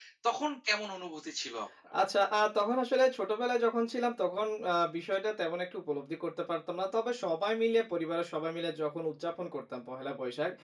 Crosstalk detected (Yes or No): No